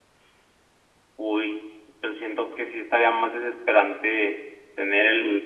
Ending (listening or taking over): listening